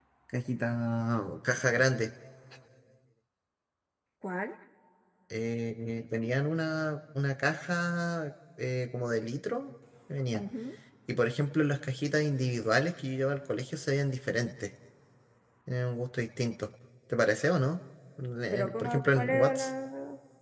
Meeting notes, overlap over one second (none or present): present